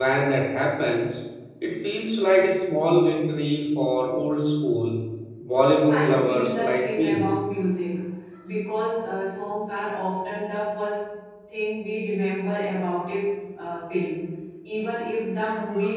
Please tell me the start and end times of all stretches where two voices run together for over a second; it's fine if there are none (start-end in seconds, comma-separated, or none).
5.9-7.3